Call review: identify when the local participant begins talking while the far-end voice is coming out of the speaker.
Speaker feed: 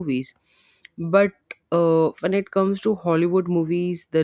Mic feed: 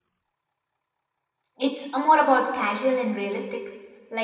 1.6 s

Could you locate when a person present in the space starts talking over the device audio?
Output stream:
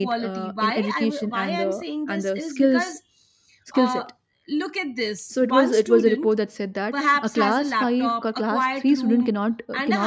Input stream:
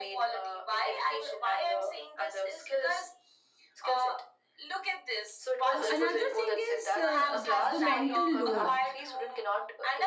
5.7 s

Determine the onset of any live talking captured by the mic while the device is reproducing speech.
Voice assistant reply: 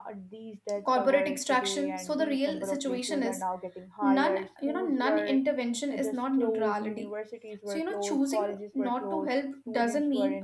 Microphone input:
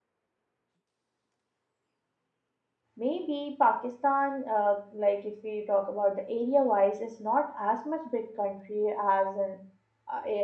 3.0 s

